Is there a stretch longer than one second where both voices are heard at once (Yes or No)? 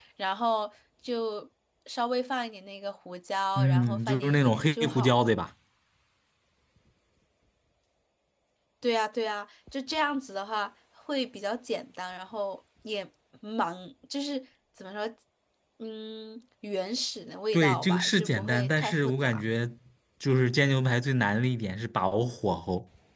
Yes